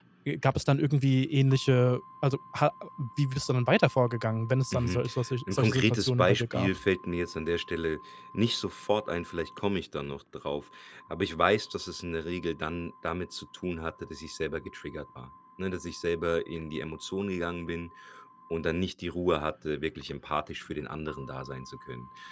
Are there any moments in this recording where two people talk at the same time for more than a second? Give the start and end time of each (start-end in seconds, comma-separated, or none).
5.5-6.8